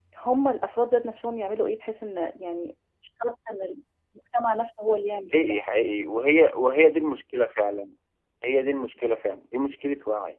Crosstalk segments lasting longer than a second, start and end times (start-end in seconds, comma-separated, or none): none